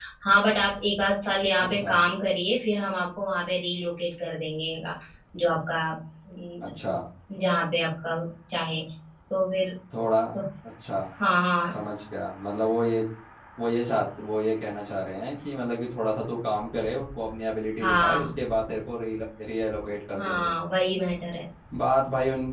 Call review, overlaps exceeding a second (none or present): none